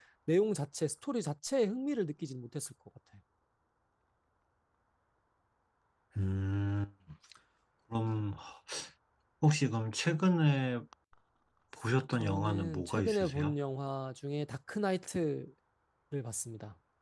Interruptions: present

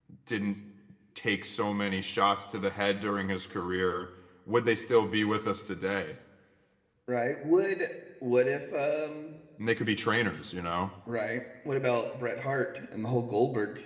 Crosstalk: none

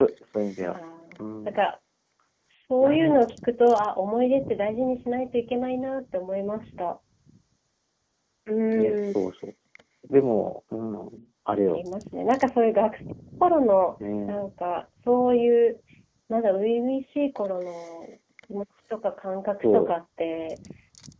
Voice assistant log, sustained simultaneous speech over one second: none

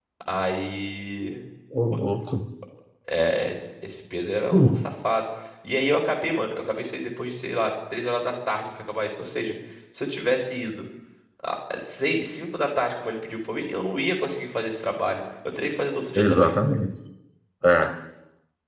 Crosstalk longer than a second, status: none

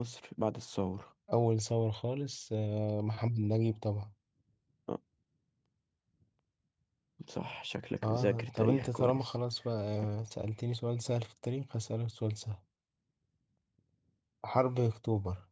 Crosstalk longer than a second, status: present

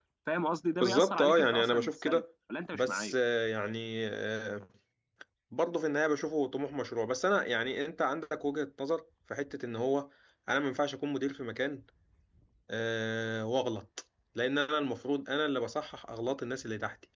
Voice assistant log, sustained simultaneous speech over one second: present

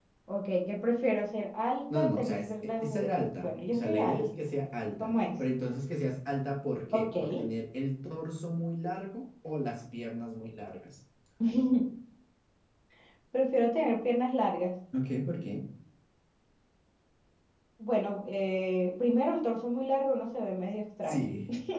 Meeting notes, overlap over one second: present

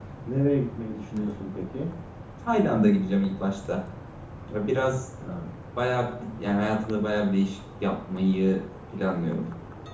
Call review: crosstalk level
none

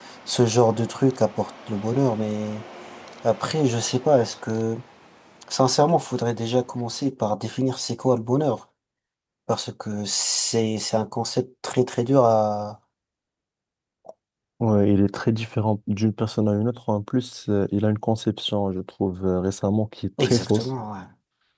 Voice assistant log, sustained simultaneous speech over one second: none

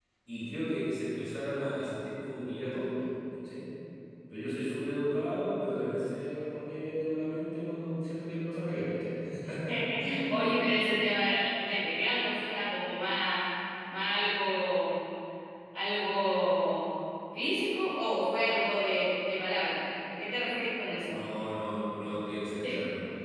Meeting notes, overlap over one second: none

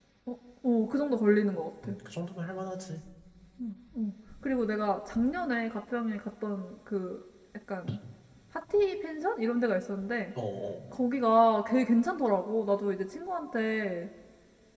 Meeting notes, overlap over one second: none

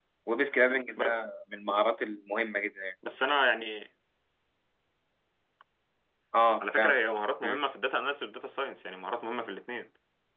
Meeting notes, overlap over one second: none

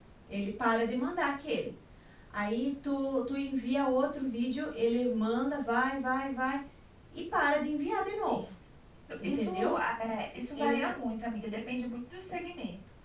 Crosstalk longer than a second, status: none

